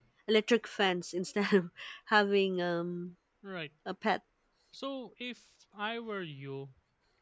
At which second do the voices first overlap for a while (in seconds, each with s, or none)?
none